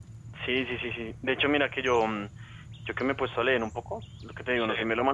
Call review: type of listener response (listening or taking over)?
listening